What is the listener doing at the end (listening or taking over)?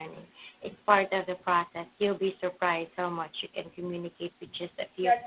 taking over